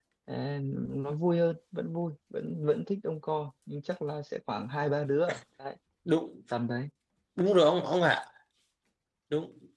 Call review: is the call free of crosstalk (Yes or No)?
Yes